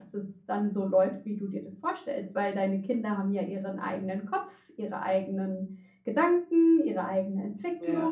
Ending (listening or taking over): taking over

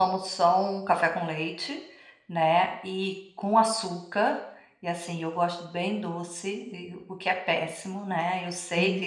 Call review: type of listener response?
listening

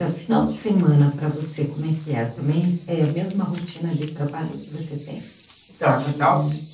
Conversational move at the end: taking over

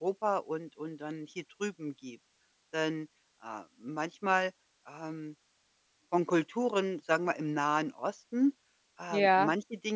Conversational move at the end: listening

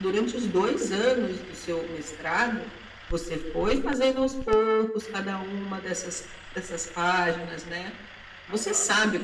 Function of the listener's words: listening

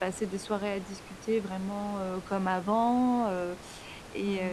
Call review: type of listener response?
listening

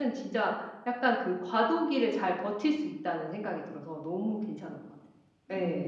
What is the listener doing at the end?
taking over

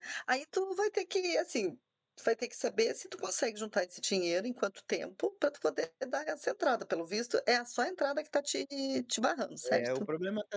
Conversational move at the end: taking over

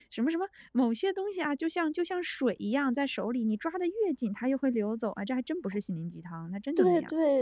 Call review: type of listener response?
taking over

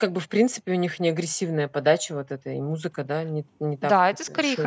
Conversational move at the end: taking over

